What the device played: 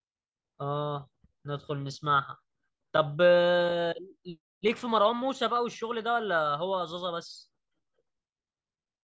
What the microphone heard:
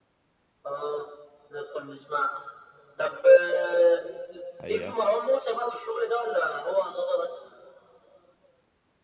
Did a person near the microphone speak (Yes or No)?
Yes